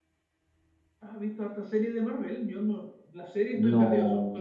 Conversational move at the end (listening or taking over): taking over